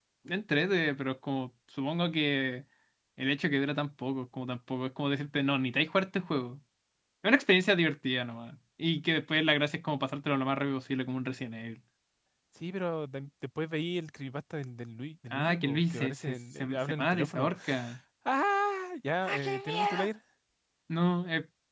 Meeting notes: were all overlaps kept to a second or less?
No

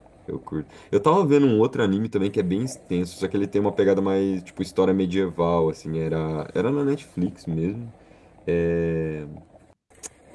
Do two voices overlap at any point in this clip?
No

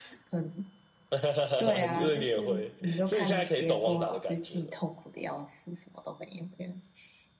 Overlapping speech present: Yes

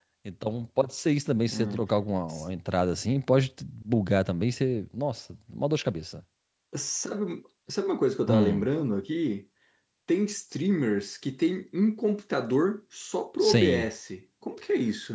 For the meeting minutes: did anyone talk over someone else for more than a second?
No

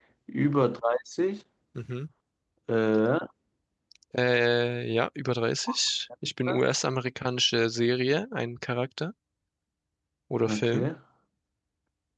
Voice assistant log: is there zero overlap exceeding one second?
Yes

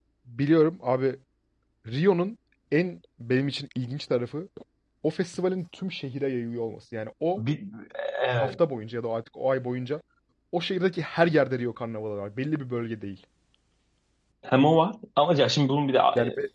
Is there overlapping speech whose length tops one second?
No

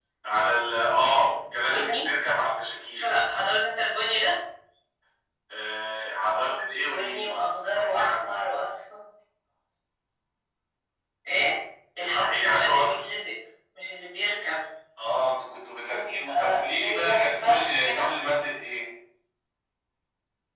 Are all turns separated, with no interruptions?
No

